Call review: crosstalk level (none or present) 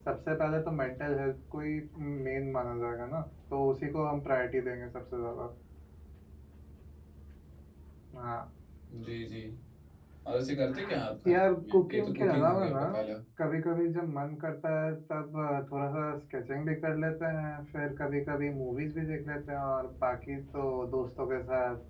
present